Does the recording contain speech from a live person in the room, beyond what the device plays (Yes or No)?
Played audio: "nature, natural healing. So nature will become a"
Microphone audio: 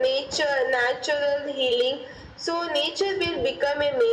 No